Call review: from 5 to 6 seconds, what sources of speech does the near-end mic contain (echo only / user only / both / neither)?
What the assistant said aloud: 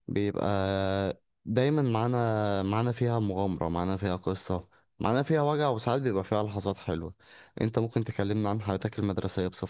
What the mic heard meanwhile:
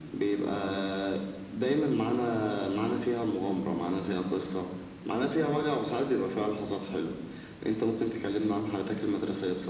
echo only